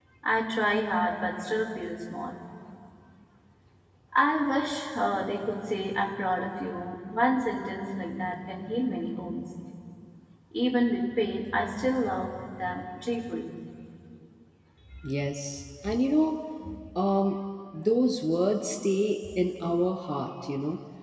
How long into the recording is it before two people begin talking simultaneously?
none

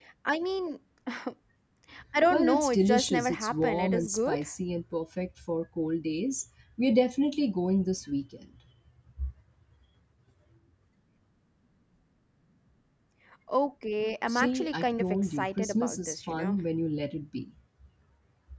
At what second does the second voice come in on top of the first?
2.3 s

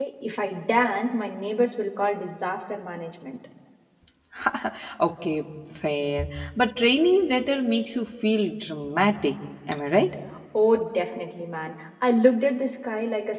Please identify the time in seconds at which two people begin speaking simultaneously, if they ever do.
none

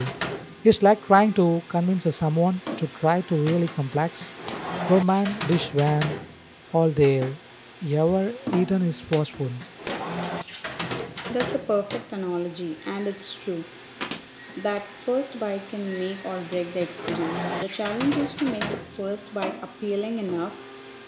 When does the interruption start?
none

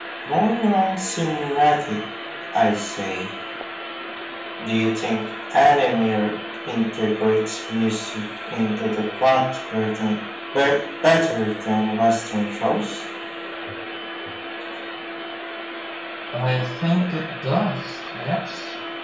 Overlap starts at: none

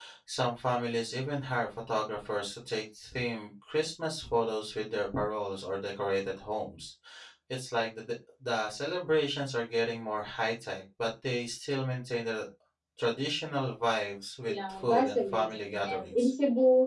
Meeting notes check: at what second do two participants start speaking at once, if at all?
14.4 s

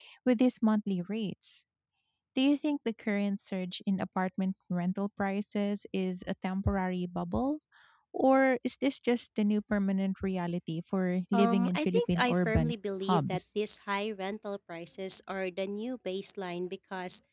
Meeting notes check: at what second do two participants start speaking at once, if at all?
11.3 s

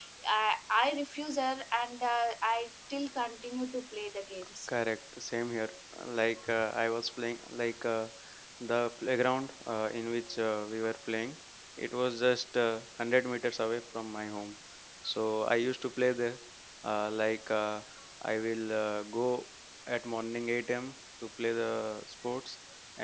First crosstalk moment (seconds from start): none

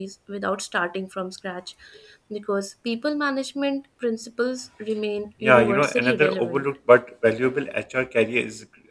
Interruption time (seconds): 5.4 s

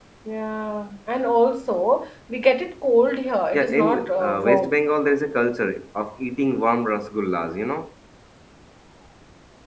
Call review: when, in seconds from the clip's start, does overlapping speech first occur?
3.5 s

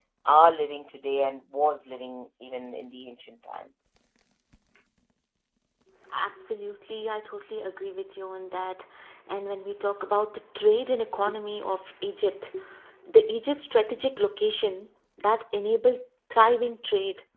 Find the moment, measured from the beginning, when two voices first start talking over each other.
none

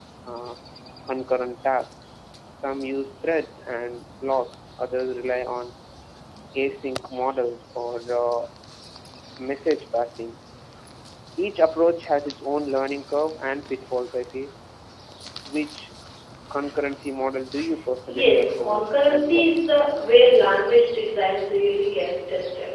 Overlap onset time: 18.1 s

